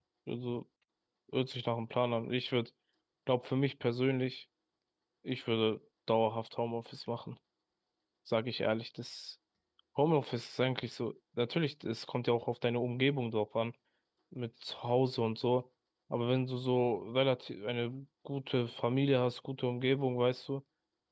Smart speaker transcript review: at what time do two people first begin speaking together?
none

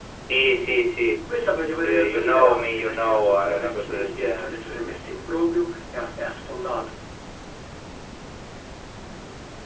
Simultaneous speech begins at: 1.8 s

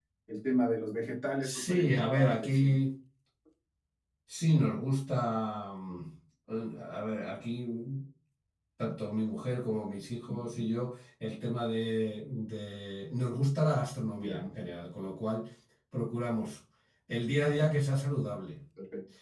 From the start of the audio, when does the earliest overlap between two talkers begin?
1.4 s

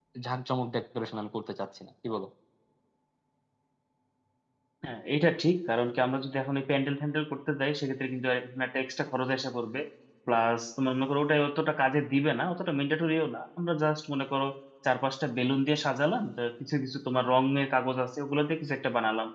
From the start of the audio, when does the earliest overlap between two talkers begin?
none

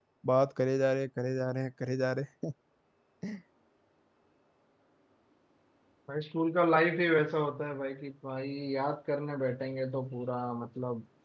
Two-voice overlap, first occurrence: none

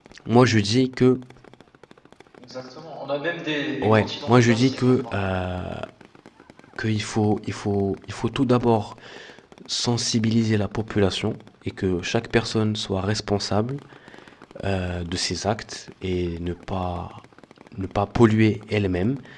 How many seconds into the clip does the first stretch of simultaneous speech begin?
3.8 s

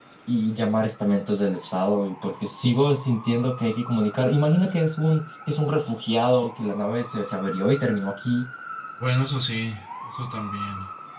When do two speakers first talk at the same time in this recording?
none

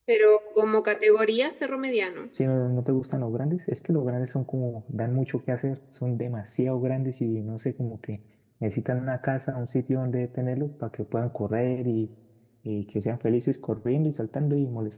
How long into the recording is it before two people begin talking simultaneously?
none

